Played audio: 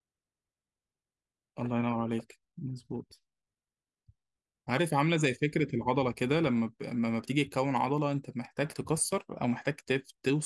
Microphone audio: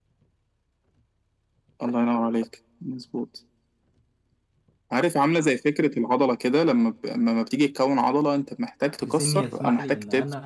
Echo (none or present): present